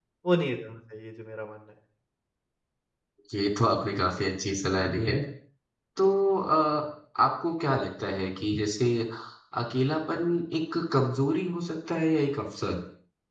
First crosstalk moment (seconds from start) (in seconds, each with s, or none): none